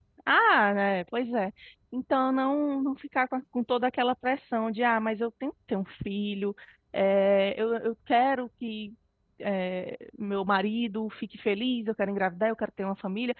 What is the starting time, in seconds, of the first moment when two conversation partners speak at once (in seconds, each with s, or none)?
none